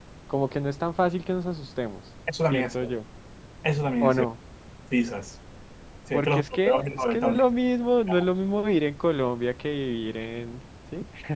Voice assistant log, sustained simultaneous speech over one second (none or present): present